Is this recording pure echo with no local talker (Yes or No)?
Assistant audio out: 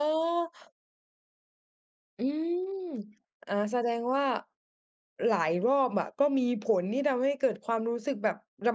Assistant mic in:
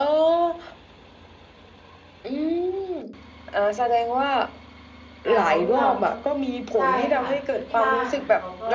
No